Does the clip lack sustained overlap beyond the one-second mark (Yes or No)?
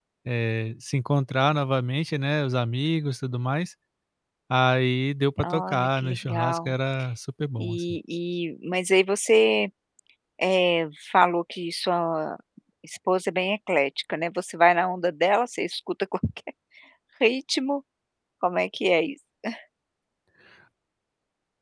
No